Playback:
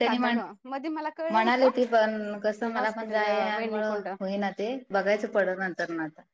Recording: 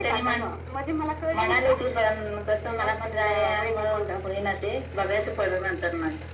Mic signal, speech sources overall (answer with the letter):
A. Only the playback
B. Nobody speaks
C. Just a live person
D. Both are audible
A